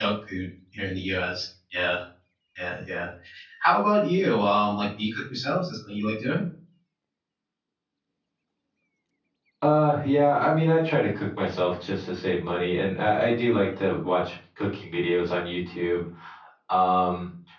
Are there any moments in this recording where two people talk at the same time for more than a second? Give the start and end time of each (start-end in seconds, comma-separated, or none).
none